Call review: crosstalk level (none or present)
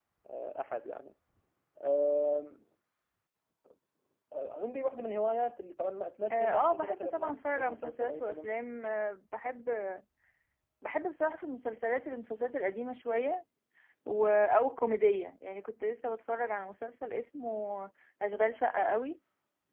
present